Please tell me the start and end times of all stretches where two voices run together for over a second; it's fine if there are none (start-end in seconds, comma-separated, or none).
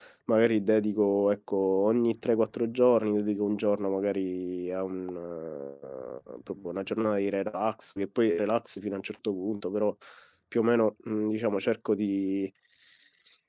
none